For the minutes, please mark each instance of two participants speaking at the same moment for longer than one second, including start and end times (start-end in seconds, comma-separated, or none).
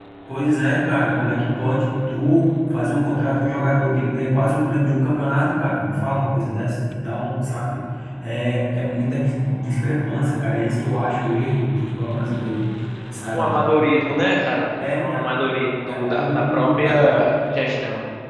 15.9-17.1